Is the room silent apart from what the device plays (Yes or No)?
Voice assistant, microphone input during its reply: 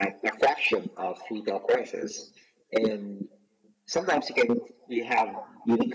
Yes